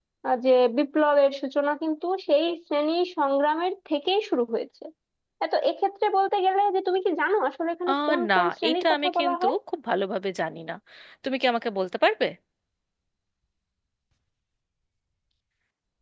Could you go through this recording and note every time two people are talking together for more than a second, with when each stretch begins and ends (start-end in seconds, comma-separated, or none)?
7.9-9.5